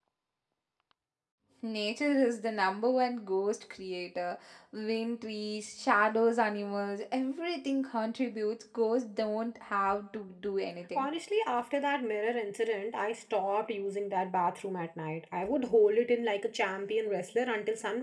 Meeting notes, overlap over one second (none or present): none